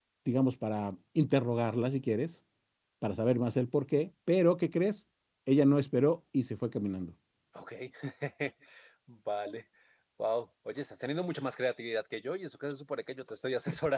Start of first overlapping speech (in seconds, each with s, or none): none